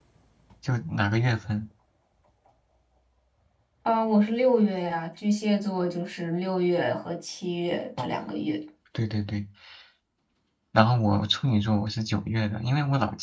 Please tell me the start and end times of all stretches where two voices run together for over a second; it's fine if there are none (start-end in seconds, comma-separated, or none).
none